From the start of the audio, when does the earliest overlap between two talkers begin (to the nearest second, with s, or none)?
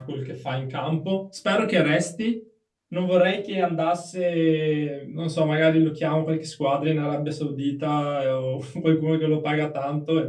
none